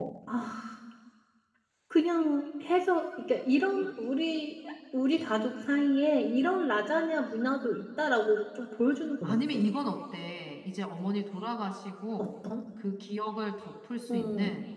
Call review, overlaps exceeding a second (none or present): none